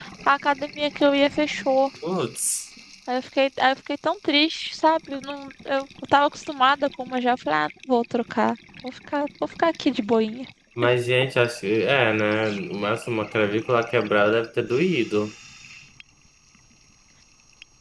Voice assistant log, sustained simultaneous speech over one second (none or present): none